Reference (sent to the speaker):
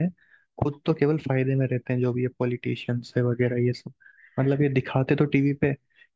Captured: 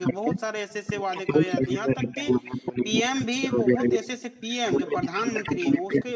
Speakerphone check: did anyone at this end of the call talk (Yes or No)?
Yes